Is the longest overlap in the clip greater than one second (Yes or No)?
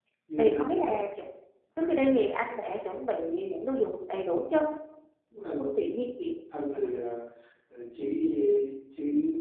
No